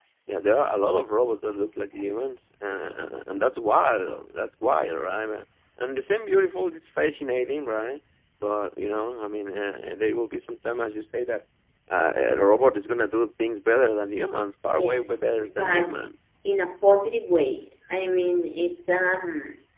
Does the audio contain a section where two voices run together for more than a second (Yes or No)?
Yes